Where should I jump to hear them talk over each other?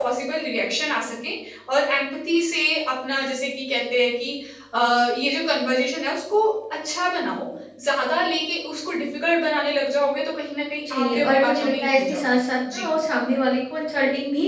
10.8 s

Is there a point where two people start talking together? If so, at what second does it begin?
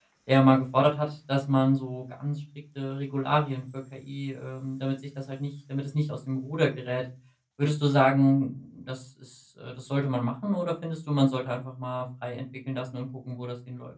none

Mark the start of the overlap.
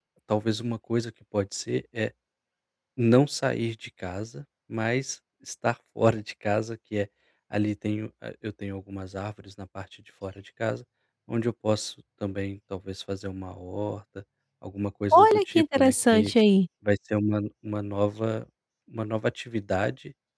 15.1 s

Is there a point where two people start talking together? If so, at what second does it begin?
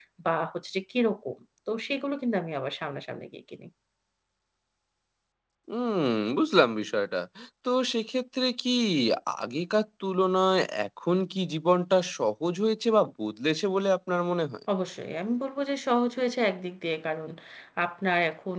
none

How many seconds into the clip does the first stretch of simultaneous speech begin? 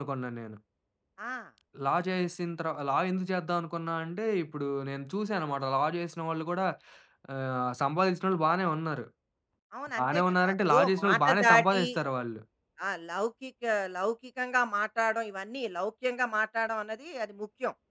10.0 s

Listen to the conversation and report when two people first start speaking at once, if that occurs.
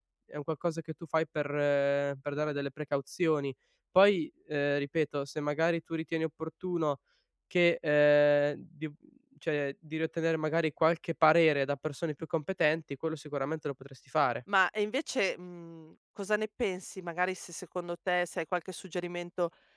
none

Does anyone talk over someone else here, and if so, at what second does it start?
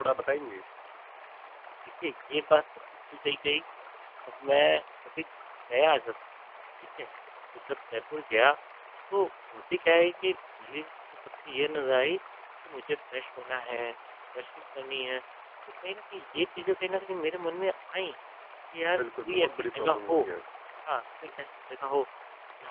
18.9 s

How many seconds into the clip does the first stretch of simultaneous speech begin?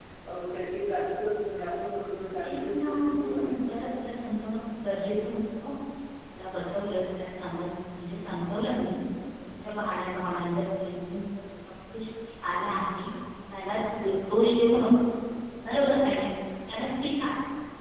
2.4 s

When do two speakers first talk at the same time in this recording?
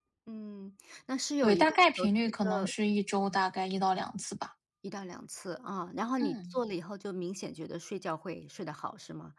1.4 s

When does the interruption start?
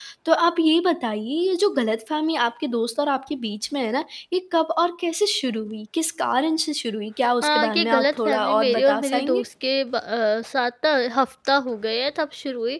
7.4 s

